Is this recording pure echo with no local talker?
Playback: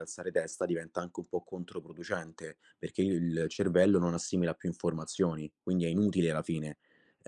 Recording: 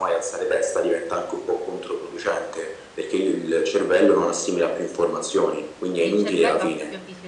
No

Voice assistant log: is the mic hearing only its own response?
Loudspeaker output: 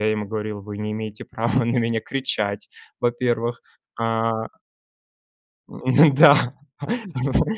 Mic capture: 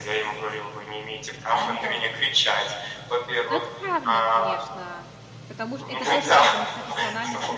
No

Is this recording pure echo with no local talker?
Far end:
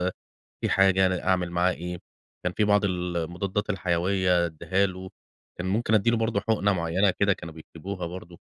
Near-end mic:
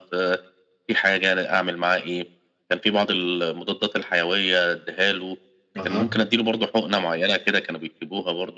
No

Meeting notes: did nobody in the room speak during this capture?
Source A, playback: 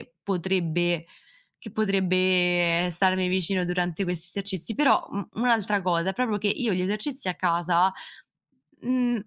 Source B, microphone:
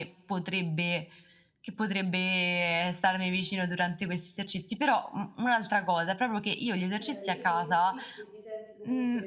No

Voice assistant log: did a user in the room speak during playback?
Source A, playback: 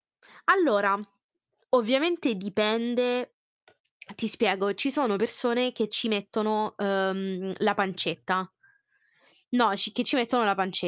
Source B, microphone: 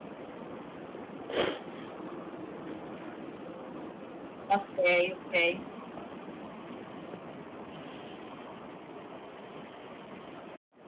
Yes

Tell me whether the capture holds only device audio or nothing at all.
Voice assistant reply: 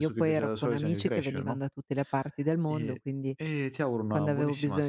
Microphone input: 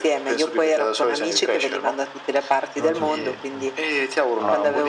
No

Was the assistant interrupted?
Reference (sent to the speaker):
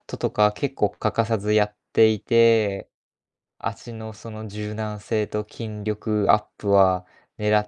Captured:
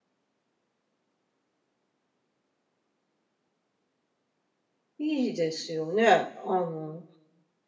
Yes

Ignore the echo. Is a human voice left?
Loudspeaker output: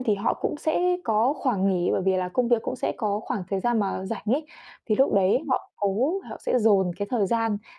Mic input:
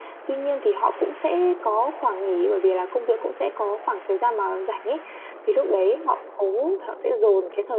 No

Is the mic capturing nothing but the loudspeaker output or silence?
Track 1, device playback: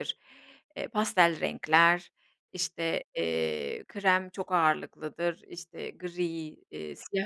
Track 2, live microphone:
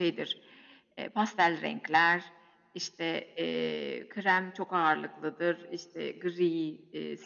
Yes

